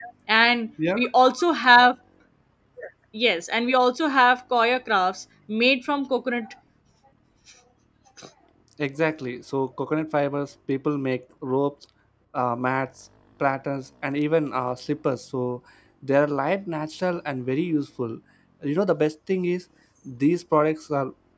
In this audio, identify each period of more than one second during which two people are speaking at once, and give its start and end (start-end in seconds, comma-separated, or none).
none